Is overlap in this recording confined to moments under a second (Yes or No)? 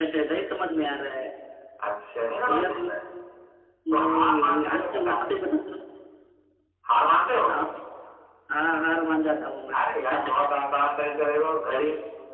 No